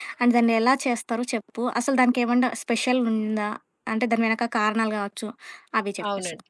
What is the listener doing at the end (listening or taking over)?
taking over